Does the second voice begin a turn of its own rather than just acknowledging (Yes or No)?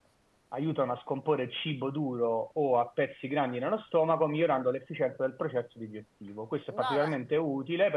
No